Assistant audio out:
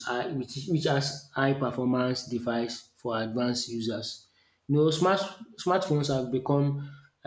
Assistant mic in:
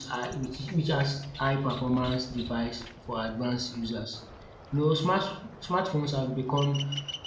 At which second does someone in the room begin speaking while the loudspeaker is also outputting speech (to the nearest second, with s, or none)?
none